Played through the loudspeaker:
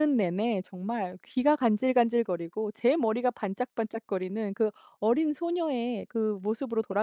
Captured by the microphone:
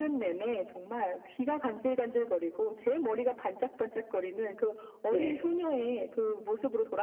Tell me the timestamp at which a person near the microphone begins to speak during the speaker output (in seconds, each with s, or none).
5.1 s